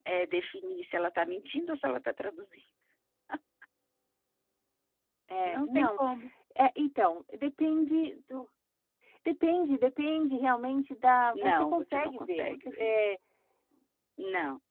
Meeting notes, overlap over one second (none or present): present